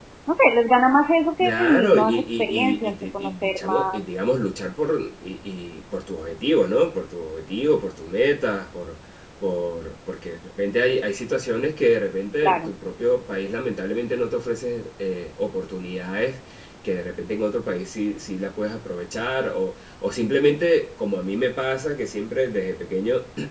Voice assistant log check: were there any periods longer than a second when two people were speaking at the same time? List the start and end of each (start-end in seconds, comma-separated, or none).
1.4-4.1